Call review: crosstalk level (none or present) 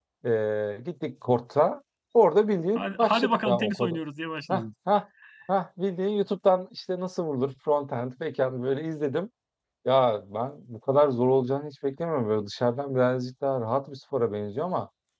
present